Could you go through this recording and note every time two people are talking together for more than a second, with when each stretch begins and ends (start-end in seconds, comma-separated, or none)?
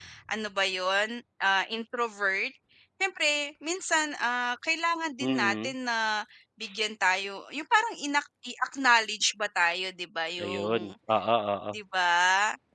none